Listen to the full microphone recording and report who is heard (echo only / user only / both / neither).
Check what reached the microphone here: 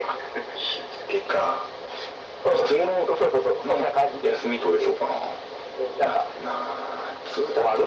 echo only